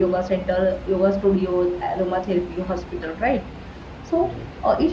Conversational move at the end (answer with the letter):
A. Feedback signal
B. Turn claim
A